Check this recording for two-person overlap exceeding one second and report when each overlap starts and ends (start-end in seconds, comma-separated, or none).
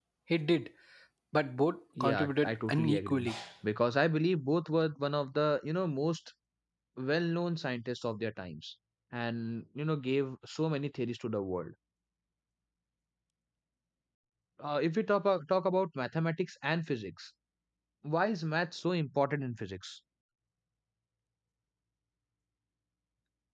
2.0-3.3